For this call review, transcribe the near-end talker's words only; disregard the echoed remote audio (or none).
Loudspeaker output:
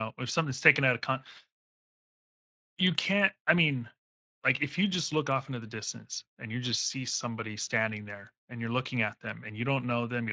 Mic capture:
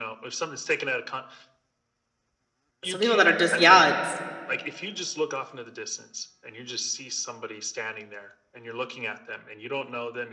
some people that are just yeah it's